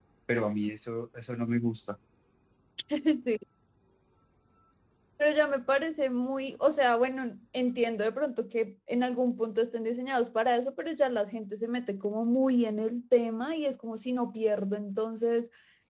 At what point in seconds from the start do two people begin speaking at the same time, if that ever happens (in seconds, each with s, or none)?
none